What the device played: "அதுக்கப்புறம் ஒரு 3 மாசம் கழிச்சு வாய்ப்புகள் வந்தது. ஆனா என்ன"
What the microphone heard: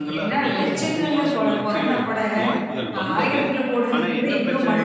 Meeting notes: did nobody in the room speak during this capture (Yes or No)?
No